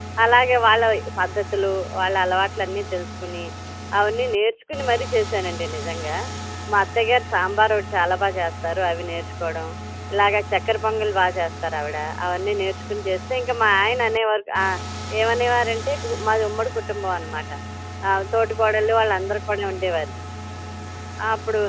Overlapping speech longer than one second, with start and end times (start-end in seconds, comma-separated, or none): none